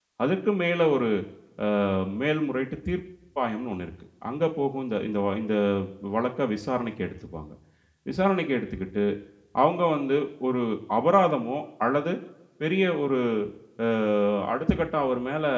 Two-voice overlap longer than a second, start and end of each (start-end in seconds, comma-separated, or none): none